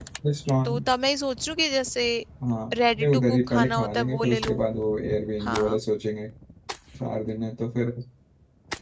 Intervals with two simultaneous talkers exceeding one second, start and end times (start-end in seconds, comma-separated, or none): 3.0-4.6